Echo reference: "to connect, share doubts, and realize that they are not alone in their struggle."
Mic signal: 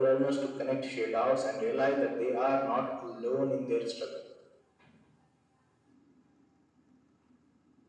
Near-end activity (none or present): none